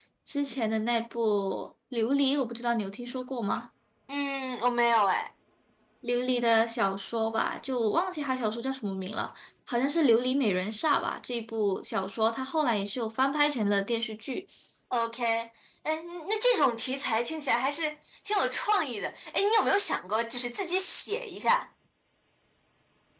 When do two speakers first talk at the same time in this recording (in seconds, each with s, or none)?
none